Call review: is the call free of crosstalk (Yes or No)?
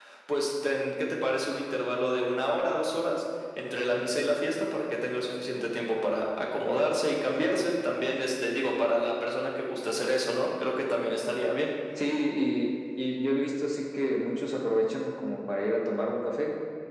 Yes